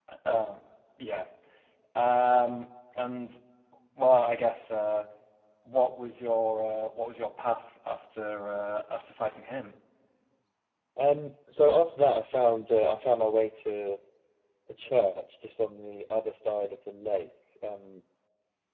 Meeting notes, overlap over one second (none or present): none